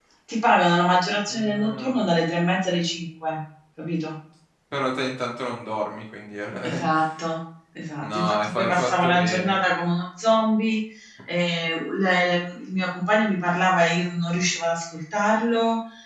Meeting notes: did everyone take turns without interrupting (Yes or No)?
No